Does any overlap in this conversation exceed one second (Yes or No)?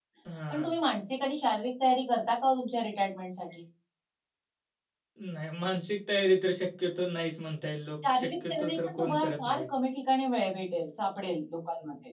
Yes